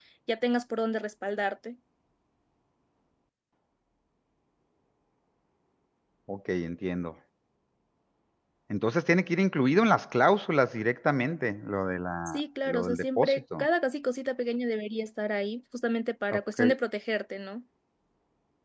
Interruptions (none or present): present